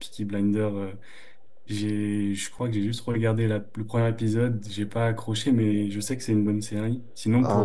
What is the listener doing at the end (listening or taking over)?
taking over